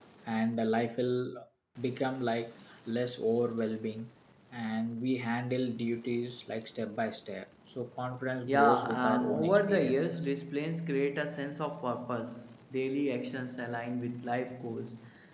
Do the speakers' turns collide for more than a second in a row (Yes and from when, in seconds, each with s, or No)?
Yes, from 8.5 s